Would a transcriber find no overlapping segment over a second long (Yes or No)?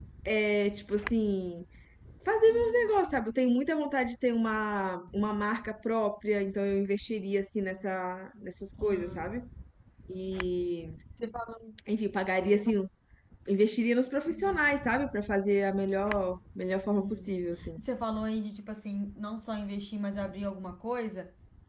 Yes